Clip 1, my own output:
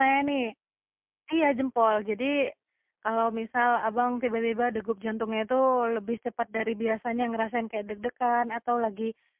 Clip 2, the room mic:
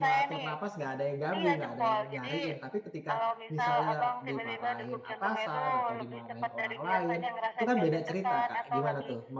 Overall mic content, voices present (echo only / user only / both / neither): both